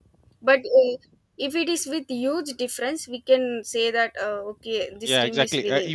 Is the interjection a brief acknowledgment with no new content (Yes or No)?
No